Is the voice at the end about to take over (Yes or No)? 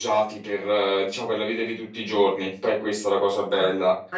Yes